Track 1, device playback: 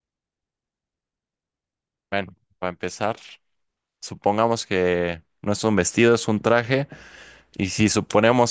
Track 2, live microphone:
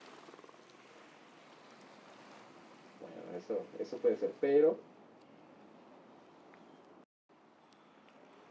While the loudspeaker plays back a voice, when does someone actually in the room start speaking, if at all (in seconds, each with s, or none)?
3.0 s